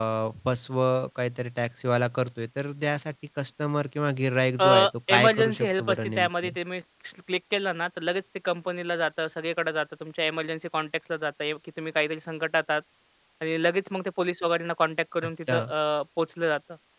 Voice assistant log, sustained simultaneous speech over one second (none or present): present